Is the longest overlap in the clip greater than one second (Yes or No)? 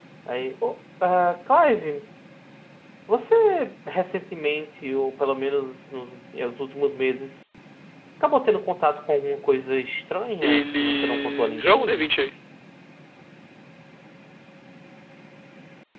Yes